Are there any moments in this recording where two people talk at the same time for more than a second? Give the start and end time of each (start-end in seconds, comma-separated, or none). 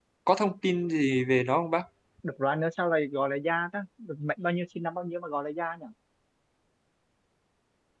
none